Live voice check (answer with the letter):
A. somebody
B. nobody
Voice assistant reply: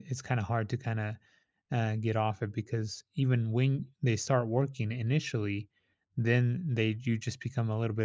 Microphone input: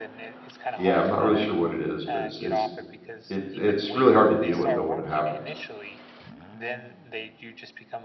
A